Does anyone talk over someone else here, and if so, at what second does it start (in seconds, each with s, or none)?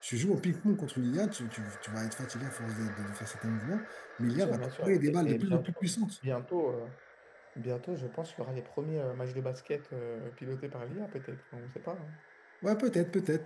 4.4 s